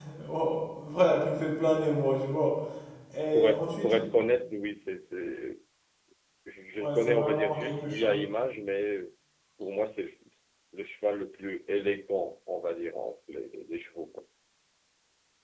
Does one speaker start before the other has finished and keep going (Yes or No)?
Yes